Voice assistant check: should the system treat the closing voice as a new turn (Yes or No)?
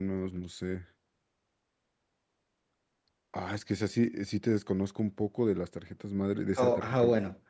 Yes